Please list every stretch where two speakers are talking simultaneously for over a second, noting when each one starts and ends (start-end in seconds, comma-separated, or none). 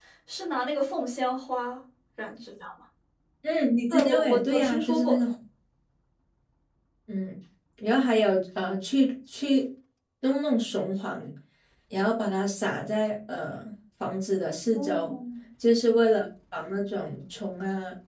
3.9-5.2